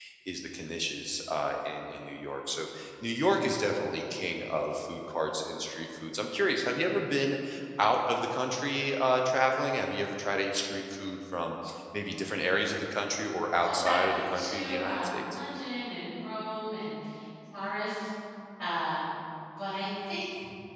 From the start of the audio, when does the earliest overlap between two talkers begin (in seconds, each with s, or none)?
13.6 s